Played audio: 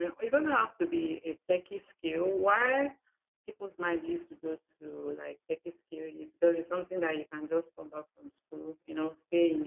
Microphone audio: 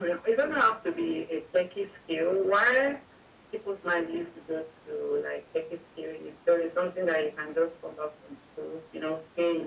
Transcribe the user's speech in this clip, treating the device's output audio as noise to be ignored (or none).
none